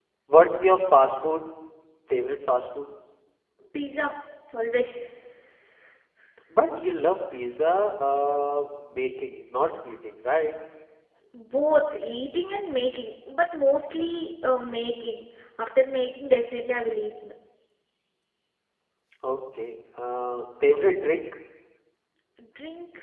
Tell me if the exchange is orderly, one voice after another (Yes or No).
Yes